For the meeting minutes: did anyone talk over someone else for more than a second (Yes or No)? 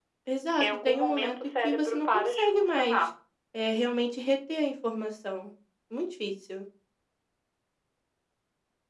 Yes